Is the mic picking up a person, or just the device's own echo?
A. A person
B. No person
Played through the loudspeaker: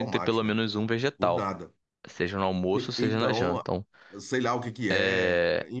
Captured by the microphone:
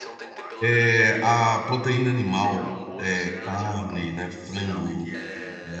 A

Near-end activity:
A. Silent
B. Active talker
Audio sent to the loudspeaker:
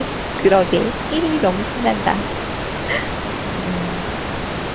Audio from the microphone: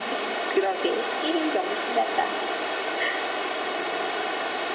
A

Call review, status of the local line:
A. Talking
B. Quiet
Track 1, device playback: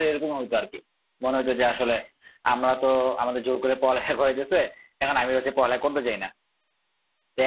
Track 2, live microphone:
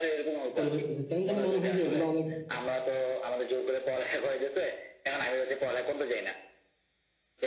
A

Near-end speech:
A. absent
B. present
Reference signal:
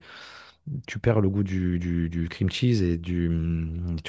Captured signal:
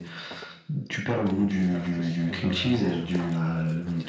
B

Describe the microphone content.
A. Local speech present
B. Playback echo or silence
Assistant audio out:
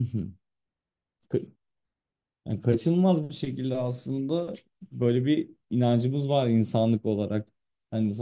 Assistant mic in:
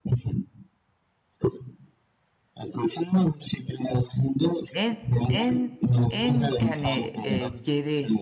A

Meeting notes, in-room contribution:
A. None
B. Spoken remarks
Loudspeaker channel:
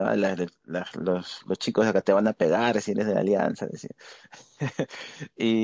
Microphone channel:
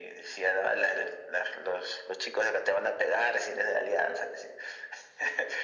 A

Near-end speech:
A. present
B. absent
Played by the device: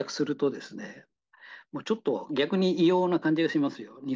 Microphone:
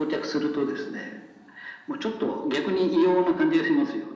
B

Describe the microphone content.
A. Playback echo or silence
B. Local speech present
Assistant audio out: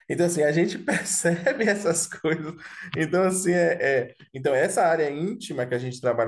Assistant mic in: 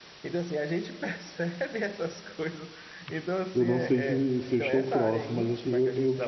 B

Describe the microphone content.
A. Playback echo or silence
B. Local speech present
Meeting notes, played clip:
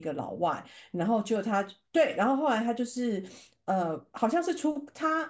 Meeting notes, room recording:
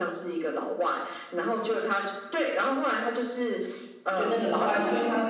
B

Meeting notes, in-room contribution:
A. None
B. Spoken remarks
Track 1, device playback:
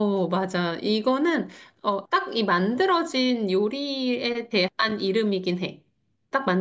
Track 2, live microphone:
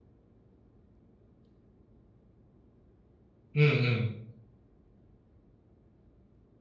B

